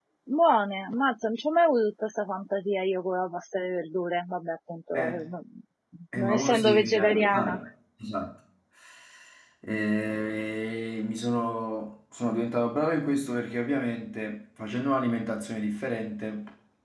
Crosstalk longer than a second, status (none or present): present